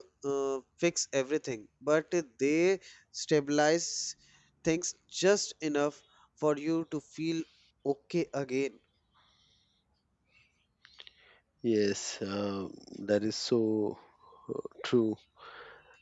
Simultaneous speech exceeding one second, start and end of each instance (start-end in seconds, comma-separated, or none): none